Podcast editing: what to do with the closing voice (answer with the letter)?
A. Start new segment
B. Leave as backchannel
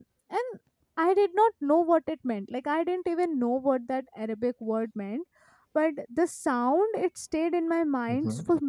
B